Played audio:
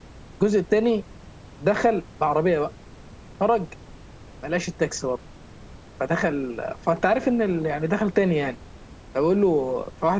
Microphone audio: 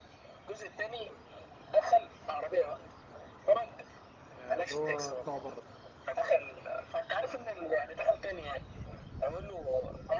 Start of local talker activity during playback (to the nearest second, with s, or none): 4 s